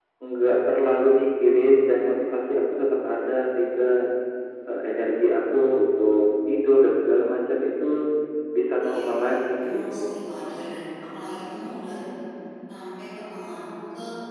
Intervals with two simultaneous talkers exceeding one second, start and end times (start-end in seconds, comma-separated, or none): 8.9-10.2